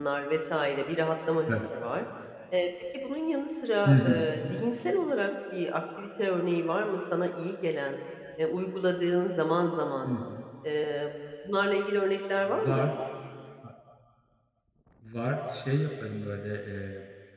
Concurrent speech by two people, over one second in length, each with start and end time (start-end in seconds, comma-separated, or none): none